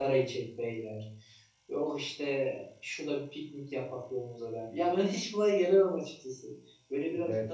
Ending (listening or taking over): listening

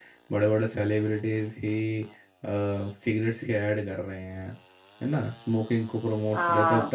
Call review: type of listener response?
listening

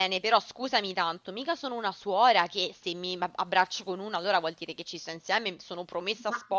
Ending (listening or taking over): listening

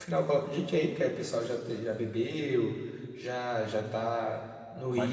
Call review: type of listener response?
taking over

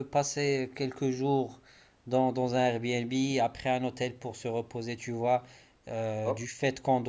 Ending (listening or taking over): listening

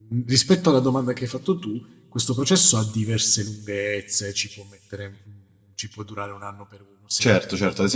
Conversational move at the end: taking over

